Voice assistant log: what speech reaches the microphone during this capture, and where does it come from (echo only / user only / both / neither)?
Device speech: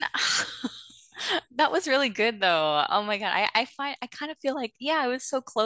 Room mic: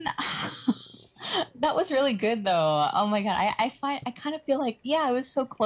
echo only